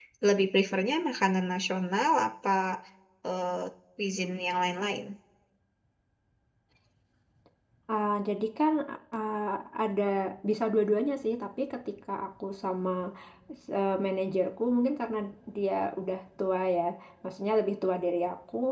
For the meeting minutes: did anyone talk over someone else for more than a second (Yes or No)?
No